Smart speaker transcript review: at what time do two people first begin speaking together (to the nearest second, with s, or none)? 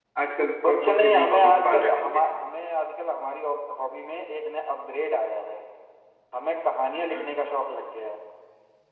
1 s